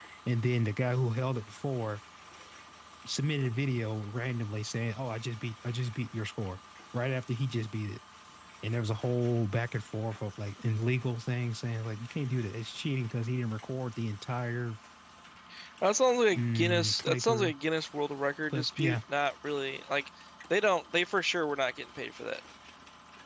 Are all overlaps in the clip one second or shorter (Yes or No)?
No